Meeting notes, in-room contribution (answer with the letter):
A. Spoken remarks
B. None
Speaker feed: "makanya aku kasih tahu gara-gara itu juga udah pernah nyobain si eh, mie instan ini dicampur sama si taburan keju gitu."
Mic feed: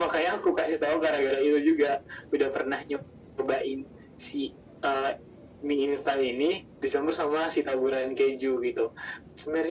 B